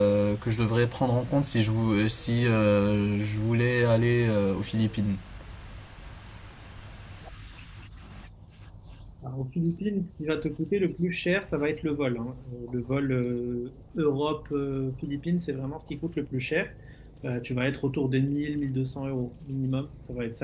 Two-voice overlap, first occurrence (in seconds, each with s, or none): none